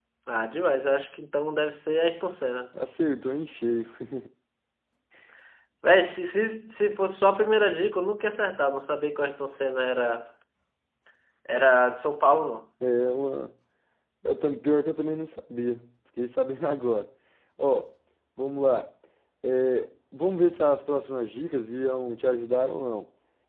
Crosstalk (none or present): none